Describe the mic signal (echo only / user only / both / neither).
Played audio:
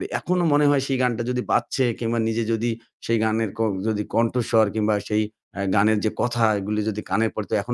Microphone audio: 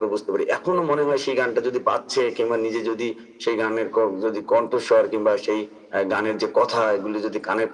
echo only